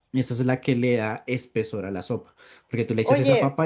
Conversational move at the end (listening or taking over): taking over